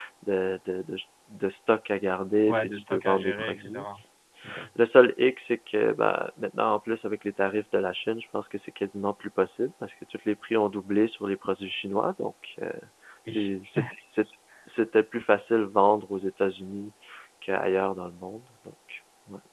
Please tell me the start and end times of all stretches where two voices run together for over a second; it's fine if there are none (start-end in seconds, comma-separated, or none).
2.5-3.8